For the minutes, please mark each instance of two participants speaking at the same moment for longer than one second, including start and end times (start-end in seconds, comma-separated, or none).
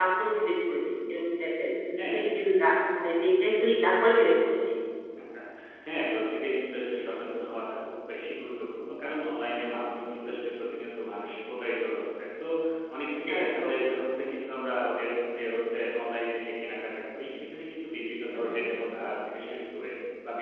none